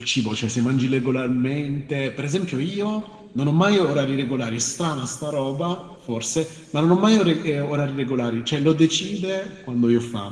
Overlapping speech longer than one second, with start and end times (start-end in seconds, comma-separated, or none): none